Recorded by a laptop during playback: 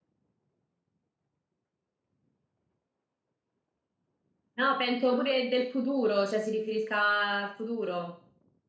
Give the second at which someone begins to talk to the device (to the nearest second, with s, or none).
5 s